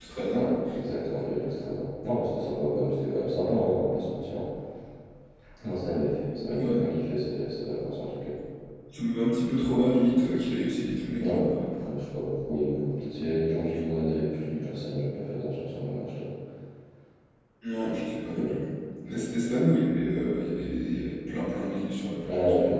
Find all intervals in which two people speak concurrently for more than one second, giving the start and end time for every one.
none

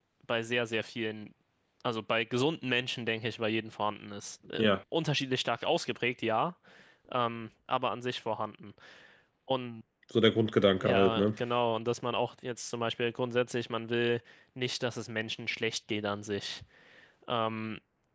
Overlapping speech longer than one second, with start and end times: none

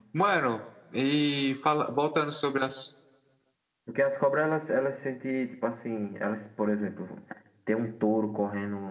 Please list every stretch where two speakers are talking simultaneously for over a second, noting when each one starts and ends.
none

